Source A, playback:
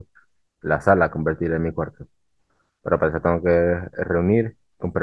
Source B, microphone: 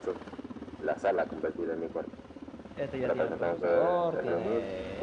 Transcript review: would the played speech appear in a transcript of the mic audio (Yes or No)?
Yes